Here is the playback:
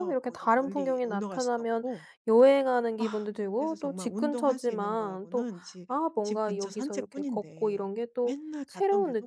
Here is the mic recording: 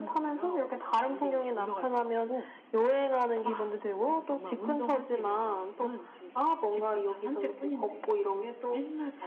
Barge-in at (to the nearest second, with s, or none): none